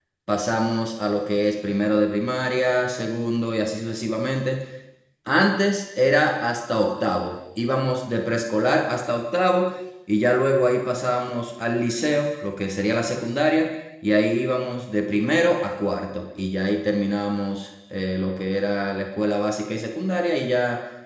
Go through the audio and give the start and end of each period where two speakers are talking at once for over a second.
none

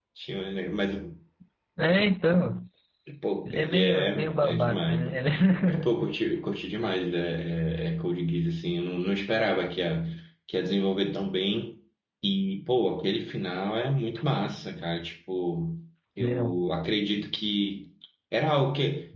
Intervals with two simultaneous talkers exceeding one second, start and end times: 3.4-5.2

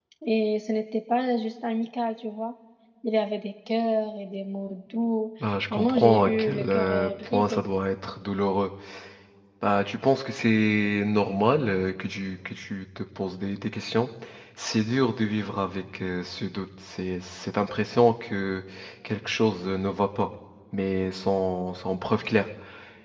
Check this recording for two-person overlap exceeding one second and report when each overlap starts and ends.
5.7-7.6

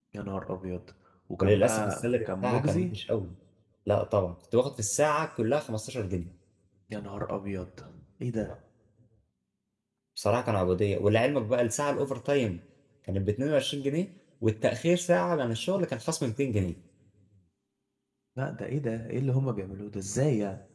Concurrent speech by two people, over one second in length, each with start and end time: 1.4-2.9

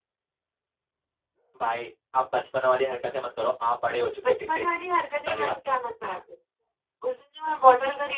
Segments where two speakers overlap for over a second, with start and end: none

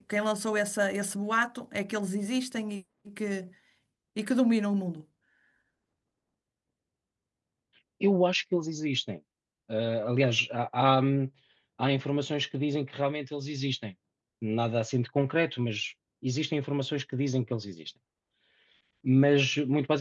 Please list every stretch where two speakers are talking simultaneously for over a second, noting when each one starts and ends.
none

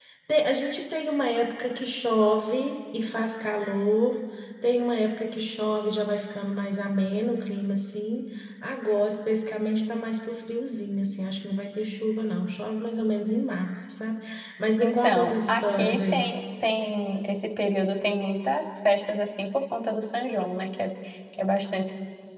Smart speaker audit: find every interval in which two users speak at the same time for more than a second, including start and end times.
14.8-16.3

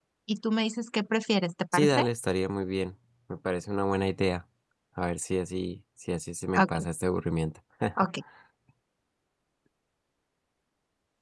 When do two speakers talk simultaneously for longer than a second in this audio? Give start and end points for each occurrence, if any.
none

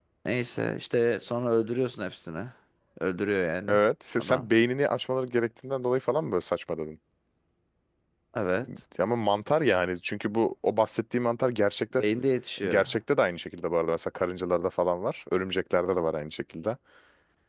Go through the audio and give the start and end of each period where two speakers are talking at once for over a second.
none

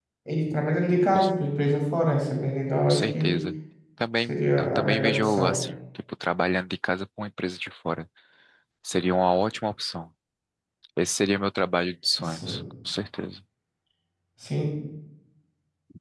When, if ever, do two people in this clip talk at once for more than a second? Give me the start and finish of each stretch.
4.3-5.5

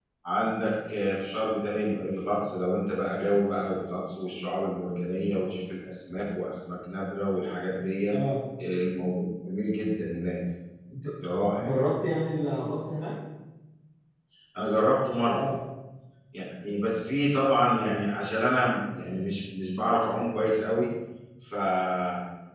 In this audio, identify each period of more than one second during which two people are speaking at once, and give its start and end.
none

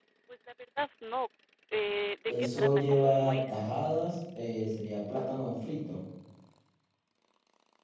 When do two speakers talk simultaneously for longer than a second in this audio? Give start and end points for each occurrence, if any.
2.3-3.6

